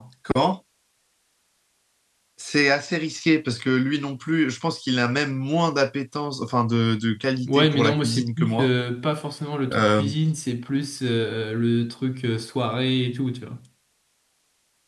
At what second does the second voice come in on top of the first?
7.5 s

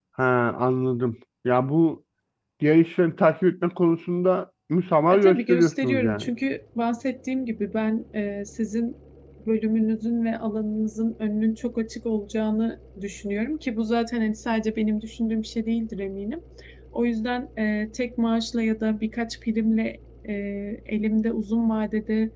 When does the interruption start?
5.1 s

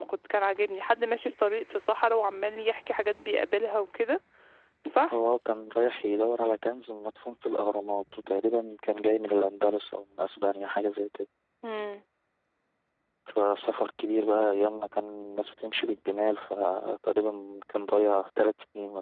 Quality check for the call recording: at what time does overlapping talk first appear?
none

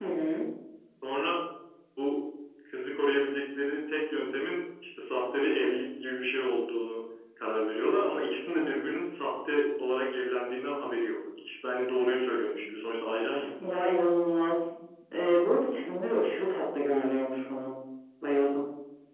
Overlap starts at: none

